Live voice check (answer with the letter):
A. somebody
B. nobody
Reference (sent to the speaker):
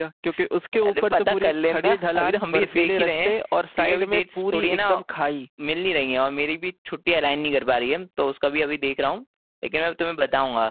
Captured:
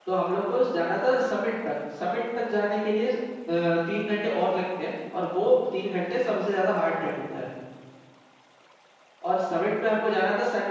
A